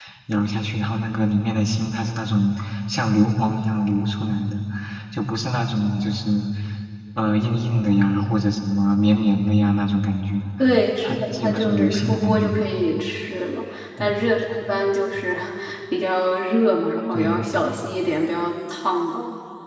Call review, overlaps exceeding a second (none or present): present